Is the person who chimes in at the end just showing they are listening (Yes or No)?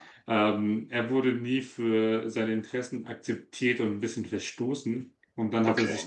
Yes